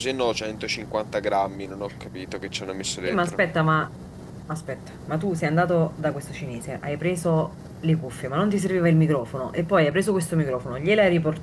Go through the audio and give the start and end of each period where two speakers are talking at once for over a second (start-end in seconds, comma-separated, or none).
none